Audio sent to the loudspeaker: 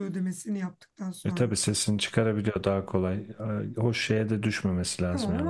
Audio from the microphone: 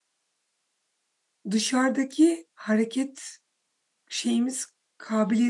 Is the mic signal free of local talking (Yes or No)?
No